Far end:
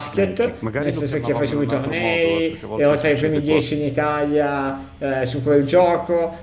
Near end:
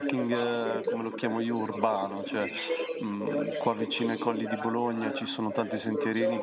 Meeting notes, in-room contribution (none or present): present